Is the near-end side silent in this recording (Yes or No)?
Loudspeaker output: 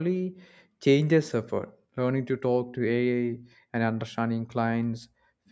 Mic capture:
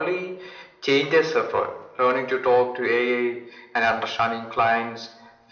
Yes